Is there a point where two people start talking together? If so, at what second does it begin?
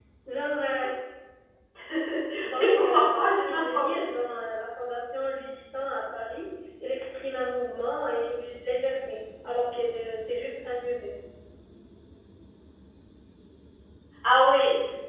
3 s

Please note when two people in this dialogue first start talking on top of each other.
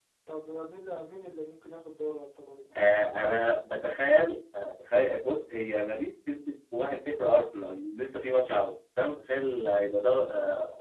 none

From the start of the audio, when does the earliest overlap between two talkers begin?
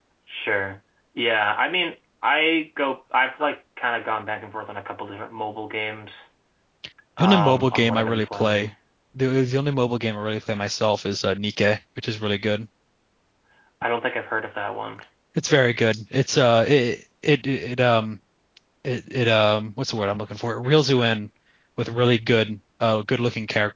7 s

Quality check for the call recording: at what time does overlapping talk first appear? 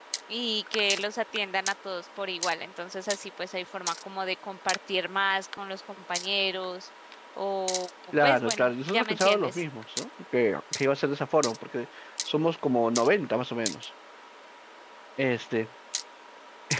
8 s

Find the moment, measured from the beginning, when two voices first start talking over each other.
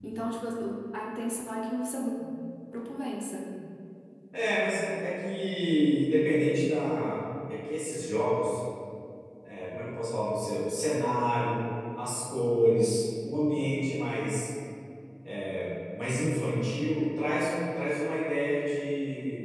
none

